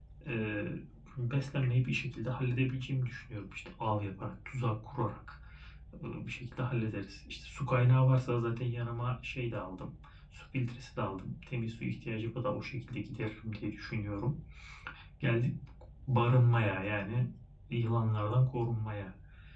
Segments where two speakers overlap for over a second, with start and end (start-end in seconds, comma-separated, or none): none